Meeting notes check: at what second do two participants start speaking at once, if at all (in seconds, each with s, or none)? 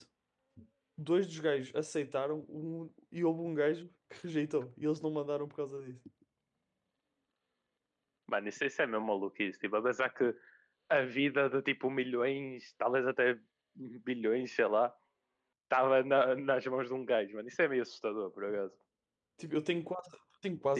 none